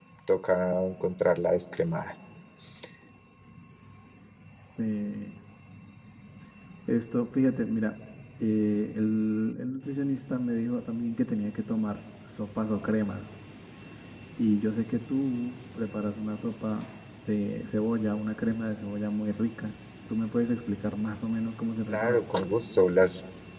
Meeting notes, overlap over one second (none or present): none